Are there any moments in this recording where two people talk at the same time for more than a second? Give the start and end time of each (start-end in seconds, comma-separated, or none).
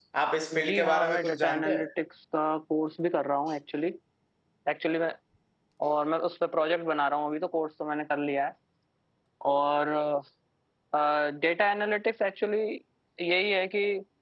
0.6-1.8